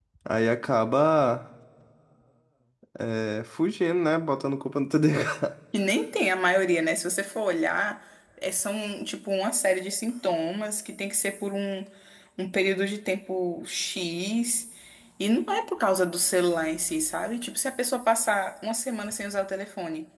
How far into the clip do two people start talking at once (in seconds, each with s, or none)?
none